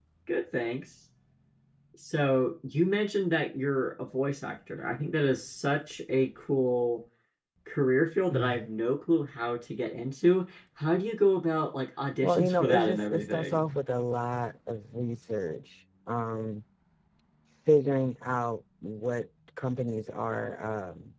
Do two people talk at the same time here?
Yes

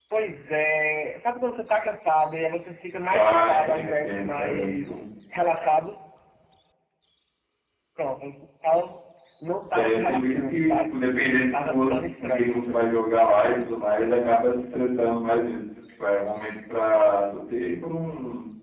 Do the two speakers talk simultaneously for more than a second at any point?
Yes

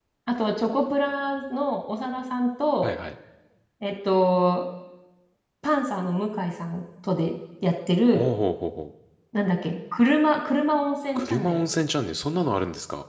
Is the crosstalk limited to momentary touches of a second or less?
Yes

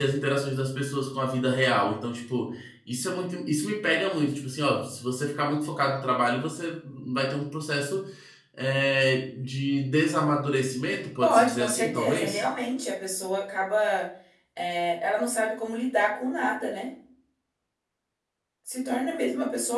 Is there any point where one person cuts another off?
Yes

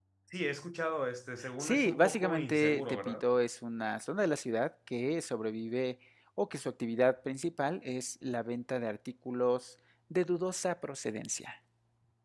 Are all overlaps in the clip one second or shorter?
No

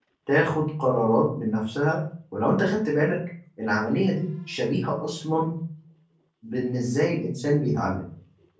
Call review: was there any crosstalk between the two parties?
No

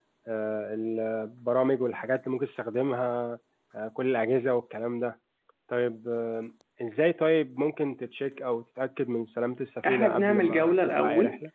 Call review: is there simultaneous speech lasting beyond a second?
Yes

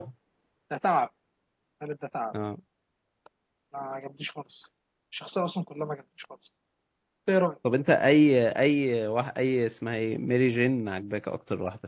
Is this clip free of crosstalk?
Yes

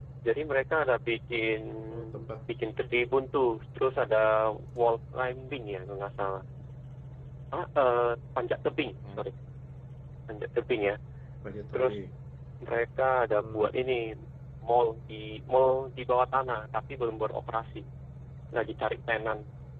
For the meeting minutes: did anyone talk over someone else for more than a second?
No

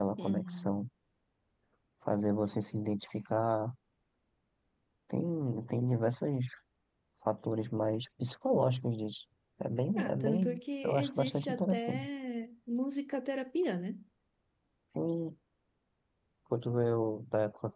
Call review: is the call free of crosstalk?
No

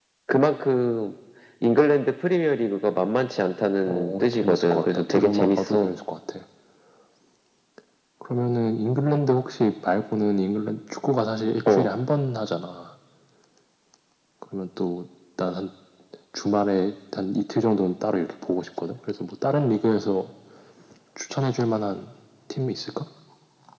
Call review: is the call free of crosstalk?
No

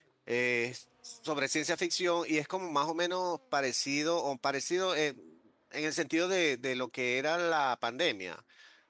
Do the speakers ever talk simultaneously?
No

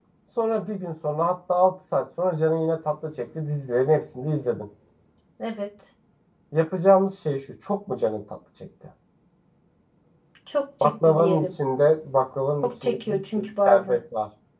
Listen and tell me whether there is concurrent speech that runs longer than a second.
Yes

